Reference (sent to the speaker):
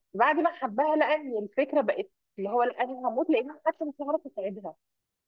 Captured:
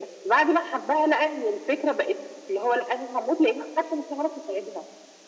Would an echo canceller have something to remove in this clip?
Yes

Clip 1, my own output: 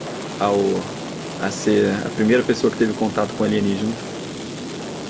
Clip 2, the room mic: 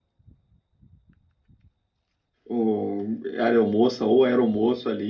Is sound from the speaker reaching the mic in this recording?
No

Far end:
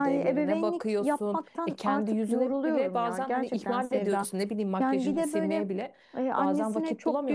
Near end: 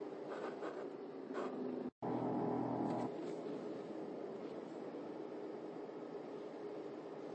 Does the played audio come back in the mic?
No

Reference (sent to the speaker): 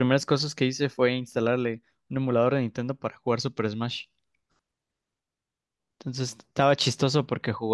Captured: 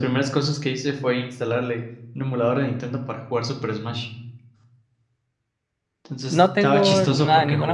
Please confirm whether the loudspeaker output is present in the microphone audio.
Yes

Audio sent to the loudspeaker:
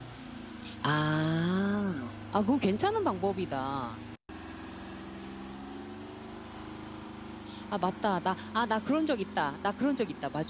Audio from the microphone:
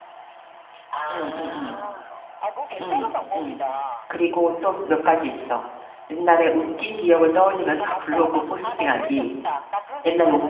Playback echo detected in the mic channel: Yes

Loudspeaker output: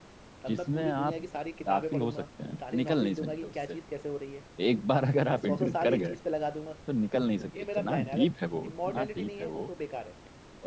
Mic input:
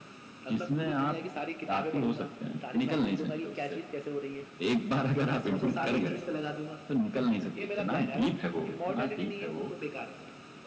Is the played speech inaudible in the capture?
No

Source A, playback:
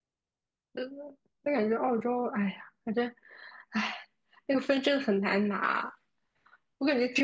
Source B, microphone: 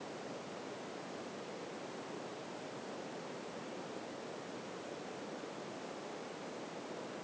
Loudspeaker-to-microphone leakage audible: No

